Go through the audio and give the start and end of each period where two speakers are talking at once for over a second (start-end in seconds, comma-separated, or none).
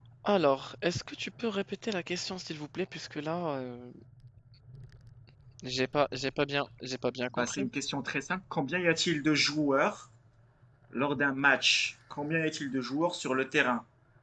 none